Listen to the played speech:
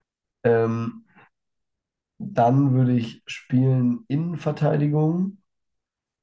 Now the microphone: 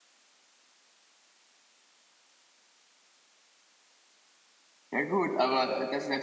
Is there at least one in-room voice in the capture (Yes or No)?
Yes